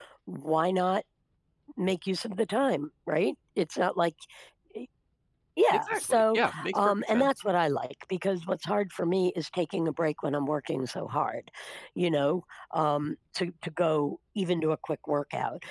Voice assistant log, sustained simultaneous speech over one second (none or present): present